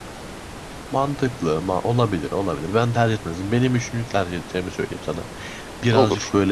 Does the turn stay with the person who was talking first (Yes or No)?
Yes